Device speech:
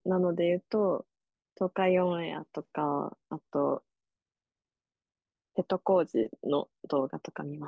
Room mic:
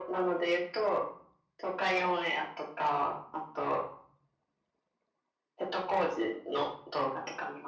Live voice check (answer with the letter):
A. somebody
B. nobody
B